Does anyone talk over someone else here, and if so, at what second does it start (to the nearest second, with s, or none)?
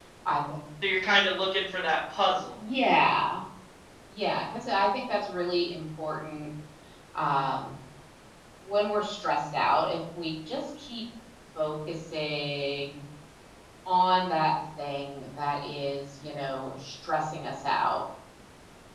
none